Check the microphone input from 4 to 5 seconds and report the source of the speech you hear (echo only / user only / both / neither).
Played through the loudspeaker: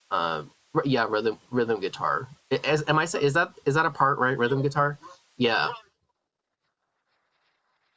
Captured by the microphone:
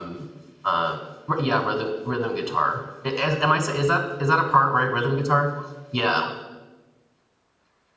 echo only